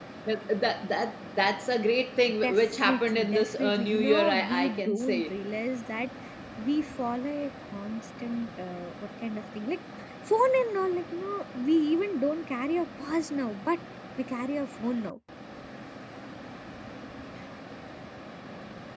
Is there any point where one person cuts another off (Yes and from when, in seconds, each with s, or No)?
Yes, from 2.4 s